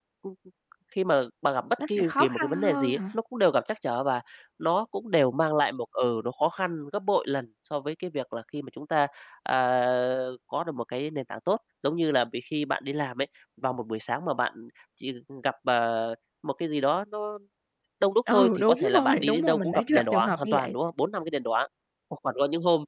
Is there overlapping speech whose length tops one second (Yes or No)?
Yes